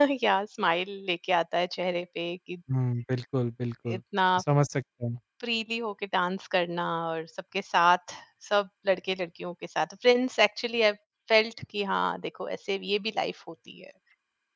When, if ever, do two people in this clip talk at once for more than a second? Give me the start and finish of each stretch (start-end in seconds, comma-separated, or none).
none